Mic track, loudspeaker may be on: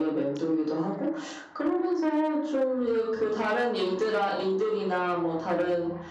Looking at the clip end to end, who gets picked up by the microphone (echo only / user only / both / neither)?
echo only